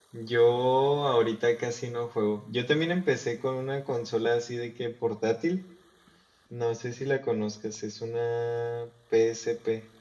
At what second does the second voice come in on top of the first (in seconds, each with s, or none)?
none